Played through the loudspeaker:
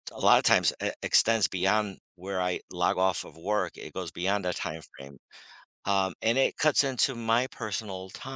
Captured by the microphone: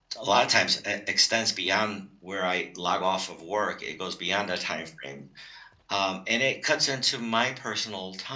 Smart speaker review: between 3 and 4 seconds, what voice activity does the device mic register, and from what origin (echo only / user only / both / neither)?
echo only